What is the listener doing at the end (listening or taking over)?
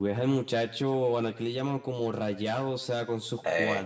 listening